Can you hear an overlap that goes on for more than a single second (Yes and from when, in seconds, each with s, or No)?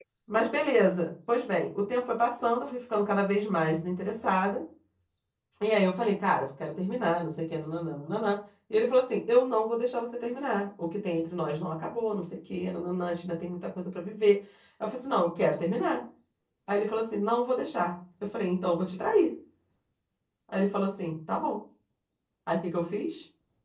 No